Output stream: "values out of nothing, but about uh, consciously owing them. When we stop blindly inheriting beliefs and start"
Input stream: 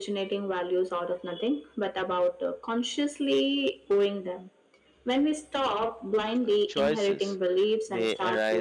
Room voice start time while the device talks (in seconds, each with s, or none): 6.4 s